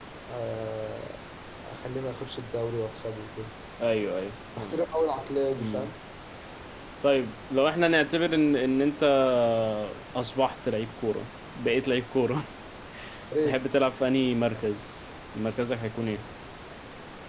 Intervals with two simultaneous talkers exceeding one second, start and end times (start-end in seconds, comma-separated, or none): none